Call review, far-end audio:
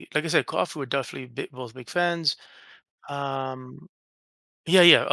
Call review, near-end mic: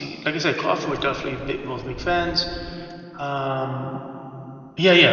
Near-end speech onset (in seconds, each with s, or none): none